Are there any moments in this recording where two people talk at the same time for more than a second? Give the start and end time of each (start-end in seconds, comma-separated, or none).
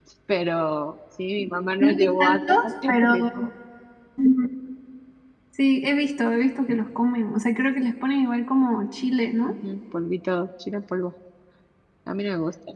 1.8-3.3